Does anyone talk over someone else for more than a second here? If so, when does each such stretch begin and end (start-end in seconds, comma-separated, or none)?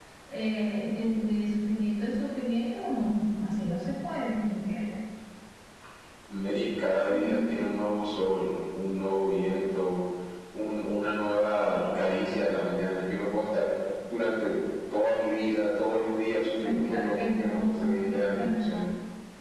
16.6-18.6